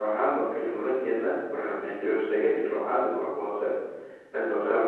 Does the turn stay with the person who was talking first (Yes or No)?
Yes